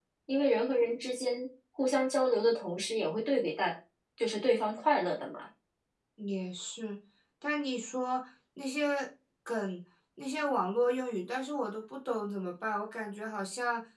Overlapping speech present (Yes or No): No